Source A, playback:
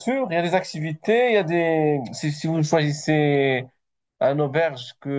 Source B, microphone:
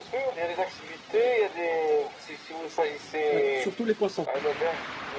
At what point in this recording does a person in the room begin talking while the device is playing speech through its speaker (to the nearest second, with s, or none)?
3 s